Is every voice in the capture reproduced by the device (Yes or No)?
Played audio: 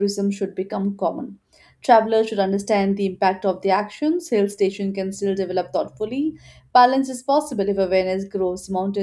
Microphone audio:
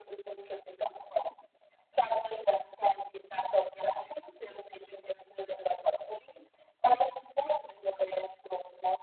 Yes